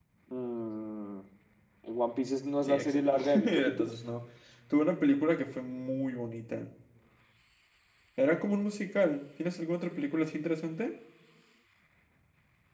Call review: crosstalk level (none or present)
present